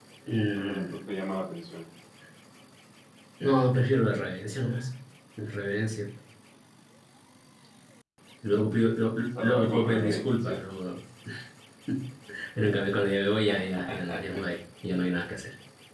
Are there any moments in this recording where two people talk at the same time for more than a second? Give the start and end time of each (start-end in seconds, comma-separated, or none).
9.4-10.6